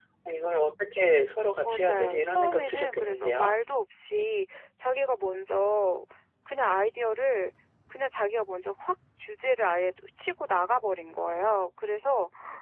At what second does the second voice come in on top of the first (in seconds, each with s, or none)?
1.6 s